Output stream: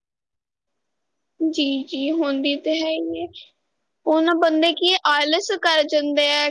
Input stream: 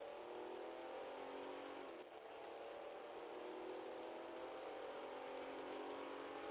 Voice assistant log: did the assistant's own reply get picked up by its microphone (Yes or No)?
No